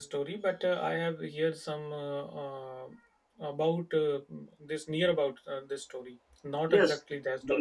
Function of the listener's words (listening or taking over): taking over